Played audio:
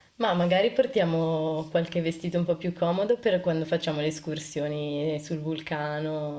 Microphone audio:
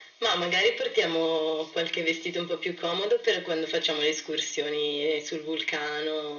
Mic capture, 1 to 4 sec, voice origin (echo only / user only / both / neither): echo only